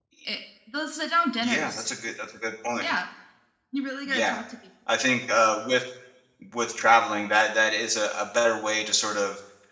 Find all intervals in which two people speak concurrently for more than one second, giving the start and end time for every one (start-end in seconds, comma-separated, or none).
none